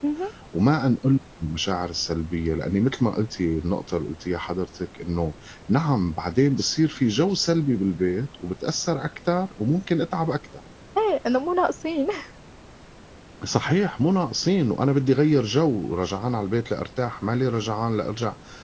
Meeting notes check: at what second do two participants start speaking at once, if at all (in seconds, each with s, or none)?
none